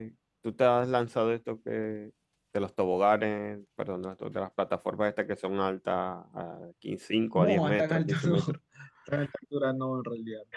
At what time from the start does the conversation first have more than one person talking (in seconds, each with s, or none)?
7.3 s